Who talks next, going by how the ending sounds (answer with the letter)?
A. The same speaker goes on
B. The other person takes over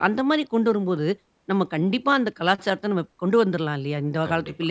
B